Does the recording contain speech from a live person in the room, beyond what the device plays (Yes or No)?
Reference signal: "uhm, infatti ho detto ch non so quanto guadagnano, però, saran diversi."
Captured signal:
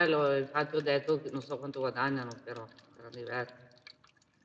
No